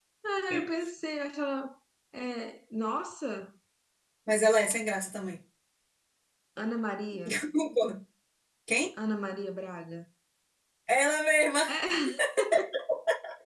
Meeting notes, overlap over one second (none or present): none